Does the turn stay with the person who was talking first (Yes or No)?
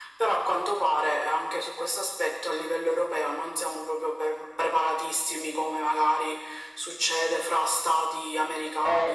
No